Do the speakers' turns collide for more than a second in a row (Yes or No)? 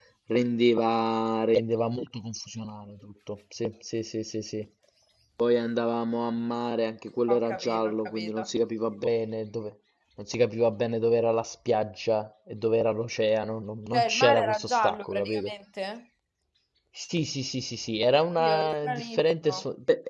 Yes